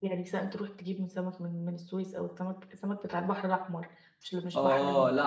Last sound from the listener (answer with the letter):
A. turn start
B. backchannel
A